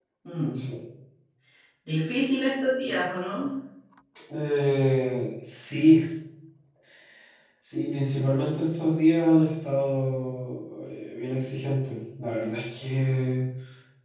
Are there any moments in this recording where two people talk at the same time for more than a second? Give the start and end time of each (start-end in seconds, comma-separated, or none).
none